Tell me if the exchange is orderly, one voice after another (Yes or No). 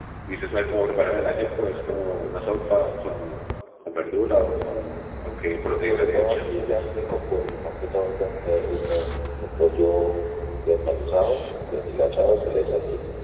No